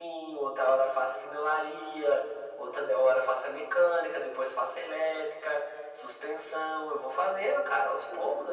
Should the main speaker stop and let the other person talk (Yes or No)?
No